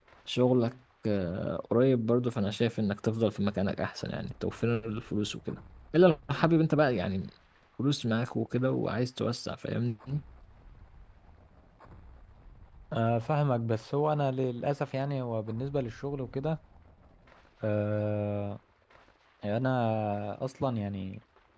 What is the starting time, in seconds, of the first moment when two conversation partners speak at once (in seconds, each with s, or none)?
none